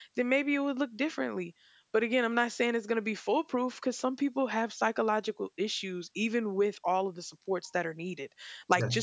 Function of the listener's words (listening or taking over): listening